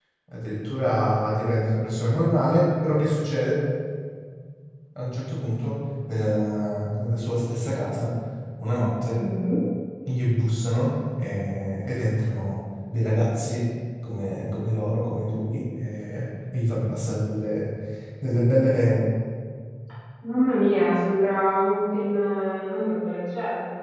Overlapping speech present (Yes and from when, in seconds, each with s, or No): No